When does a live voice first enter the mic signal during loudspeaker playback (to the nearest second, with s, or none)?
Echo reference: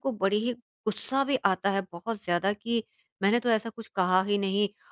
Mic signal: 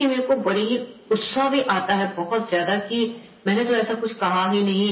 none